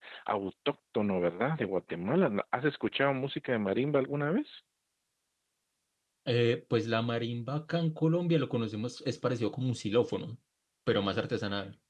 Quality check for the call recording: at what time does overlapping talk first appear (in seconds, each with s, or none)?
none